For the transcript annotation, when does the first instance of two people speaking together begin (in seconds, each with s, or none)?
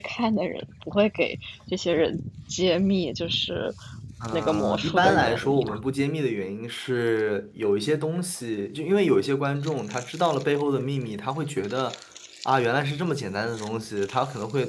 4.3 s